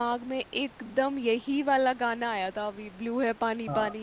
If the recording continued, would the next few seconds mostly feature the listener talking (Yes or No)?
No